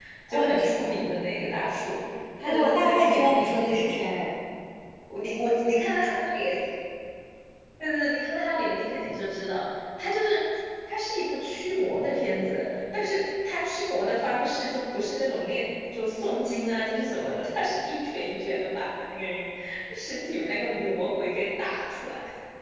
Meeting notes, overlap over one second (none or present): present